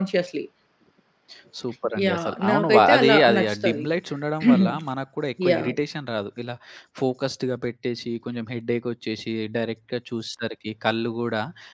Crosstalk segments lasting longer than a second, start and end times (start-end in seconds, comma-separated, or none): 2.0-3.9